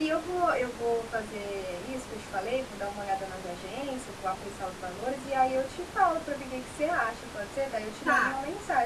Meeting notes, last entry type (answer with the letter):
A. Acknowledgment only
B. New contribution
B